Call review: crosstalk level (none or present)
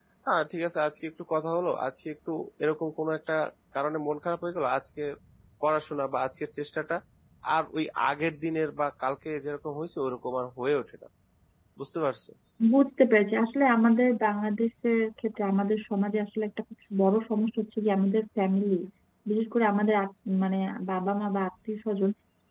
none